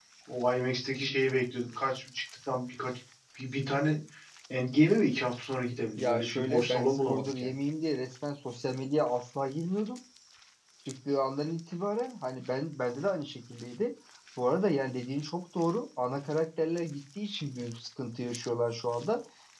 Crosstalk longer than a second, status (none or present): present